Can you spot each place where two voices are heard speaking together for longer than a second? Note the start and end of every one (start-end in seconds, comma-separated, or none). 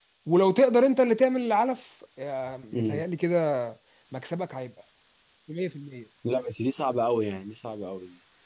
none